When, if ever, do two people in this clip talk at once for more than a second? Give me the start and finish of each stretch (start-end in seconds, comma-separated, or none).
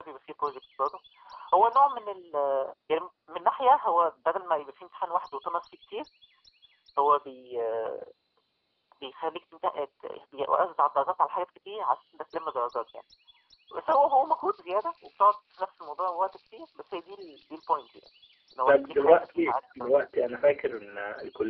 18.6-19.9